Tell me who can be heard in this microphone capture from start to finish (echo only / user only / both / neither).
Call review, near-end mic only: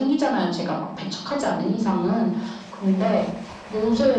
echo only